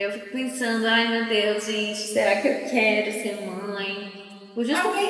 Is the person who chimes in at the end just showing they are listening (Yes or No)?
No